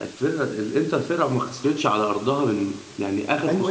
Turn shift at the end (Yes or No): Yes